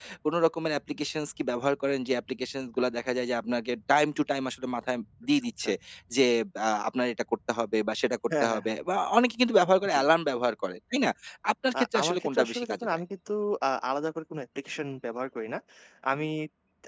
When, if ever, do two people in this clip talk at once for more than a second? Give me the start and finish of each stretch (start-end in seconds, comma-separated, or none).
11.7-13.0